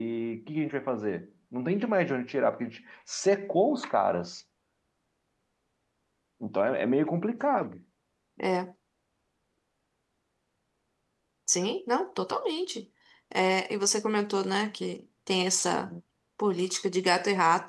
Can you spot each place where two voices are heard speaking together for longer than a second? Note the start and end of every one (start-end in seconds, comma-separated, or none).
none